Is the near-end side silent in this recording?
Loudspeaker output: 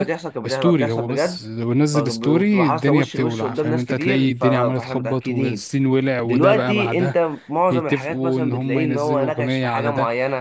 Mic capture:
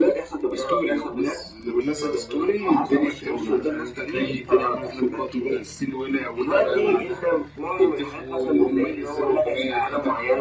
Yes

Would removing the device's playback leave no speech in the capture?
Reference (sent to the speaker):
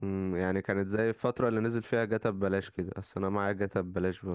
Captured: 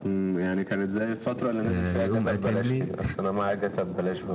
No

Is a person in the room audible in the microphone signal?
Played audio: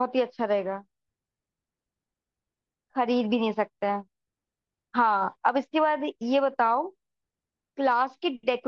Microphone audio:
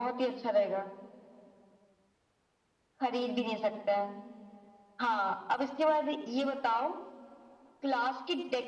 No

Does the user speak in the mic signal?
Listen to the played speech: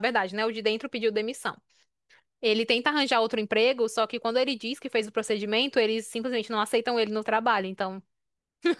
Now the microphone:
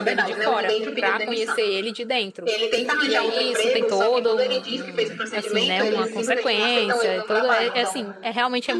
Yes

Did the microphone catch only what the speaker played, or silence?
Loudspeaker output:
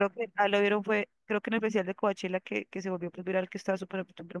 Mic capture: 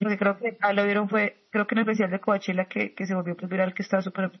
Yes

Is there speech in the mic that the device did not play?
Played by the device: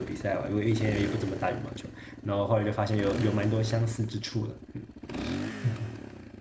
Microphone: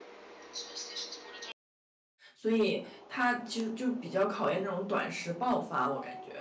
Yes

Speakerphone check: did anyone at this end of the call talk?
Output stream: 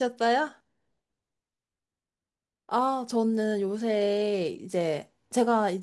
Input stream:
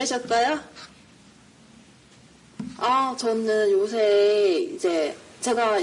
No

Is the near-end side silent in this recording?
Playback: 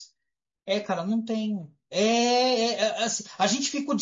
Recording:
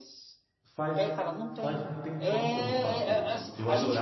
No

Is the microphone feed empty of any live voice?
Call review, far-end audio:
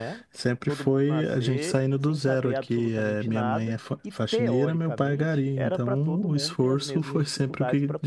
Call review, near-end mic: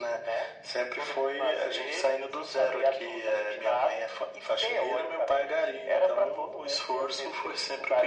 Yes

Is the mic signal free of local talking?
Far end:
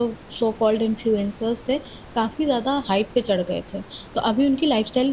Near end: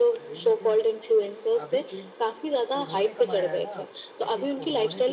No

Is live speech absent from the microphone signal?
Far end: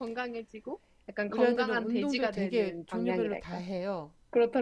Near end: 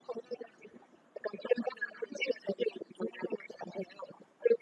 Yes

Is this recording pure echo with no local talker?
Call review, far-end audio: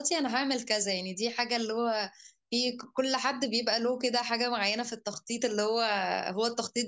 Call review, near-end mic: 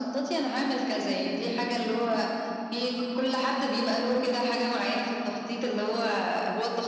Yes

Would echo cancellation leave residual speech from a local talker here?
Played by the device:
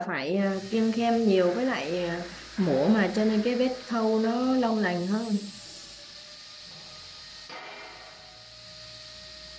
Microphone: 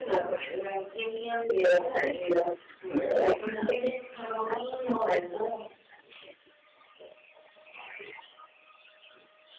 No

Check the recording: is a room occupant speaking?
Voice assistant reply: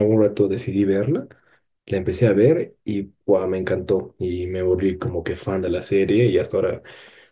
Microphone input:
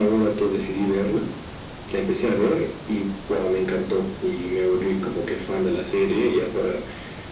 No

